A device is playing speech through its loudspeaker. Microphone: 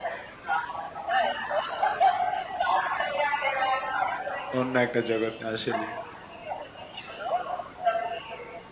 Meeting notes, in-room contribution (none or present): present